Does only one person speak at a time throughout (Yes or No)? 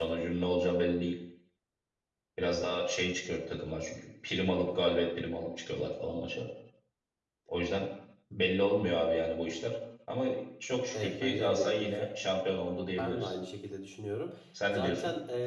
No